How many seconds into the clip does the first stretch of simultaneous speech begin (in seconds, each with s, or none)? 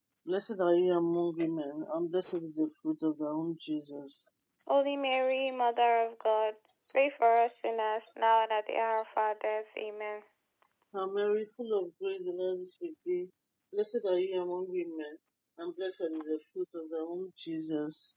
none